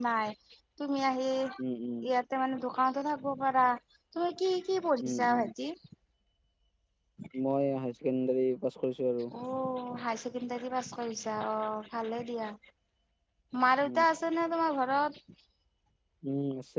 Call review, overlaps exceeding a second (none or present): none